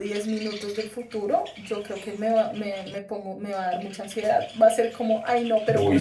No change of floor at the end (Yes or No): Yes